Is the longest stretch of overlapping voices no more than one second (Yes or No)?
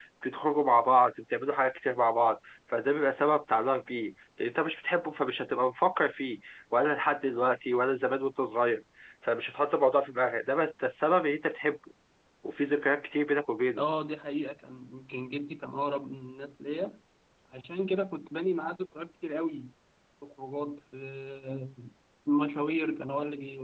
Yes